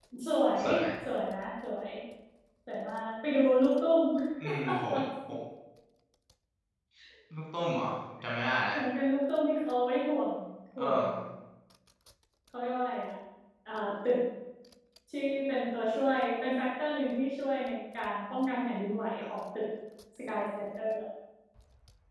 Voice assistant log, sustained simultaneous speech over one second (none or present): none